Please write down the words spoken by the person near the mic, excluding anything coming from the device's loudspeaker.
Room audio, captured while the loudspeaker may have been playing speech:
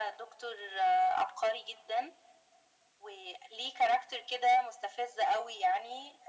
none

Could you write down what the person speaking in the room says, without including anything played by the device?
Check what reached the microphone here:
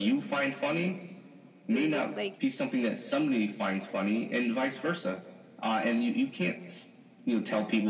the wo- like

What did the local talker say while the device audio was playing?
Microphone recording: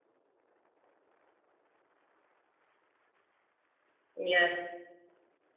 Yes.

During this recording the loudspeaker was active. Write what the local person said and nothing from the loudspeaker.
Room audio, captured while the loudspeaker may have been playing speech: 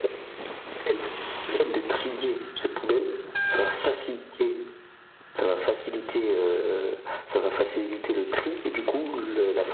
none

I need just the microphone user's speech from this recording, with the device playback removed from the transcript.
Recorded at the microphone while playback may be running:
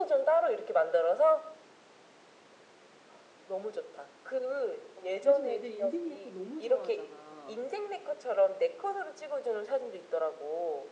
요즘 애들 인생 네컷 너무 좋아하잖아.

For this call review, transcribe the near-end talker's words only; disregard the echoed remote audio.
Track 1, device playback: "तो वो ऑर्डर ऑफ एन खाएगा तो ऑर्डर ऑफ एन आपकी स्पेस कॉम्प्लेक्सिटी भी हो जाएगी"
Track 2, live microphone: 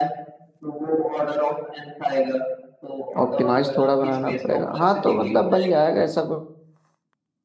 ऑप्टिमाइज थोड़ा बनाना पड़ेगा हाँ तो मतलब बन जाएगा ऐसा कुछ

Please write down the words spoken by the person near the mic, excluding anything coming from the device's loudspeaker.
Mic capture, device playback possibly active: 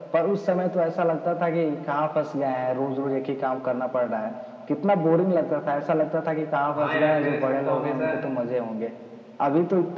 हाँ यार मेरे साथ तो हमेशा

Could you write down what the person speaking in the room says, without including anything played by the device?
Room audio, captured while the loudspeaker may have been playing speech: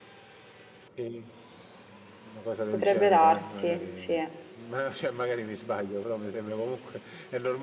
Potrebbe darsi, sì,

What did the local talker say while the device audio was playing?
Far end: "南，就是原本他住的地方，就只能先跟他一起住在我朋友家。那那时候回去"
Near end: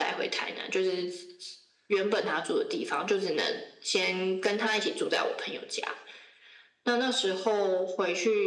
none

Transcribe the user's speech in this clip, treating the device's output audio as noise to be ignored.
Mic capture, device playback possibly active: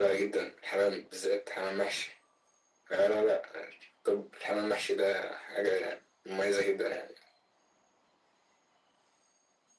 none

